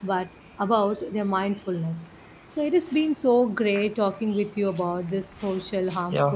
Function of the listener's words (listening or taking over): listening